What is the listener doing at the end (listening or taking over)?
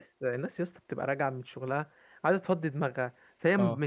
listening